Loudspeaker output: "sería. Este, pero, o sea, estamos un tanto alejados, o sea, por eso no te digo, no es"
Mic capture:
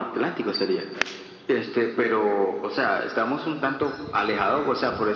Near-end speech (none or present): none